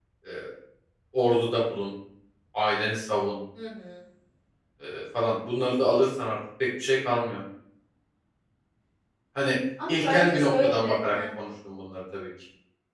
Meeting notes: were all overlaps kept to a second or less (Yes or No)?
No